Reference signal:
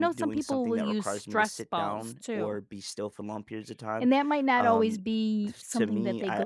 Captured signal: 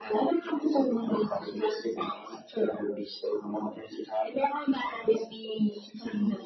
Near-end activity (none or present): none